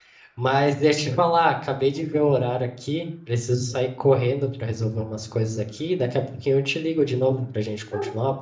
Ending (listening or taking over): taking over